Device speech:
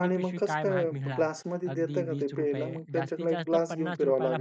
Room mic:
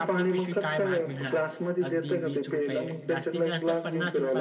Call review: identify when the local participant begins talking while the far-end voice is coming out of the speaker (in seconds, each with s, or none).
none